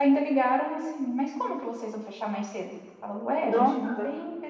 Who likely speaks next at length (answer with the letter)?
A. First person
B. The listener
A